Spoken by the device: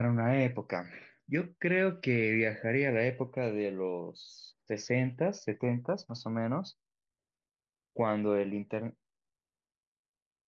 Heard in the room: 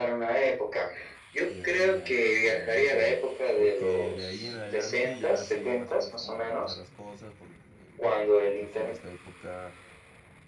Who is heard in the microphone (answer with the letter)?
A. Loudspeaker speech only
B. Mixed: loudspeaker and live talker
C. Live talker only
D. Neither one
B